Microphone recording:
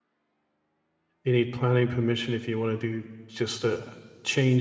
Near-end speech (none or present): present